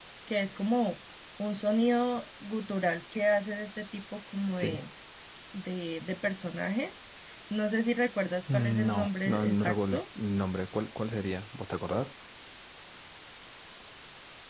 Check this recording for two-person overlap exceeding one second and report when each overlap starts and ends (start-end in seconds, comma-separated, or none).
8.5-10.0